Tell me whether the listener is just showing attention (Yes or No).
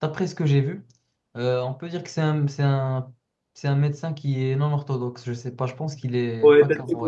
No